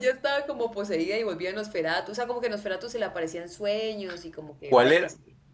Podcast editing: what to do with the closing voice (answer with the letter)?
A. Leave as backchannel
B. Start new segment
B